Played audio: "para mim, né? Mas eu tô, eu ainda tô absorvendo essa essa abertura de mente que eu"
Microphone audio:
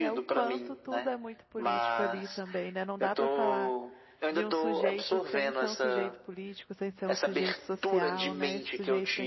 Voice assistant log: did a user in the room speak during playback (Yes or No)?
Yes